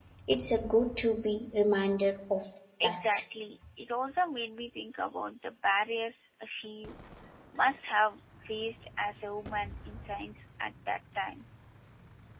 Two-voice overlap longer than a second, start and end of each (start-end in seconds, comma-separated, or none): none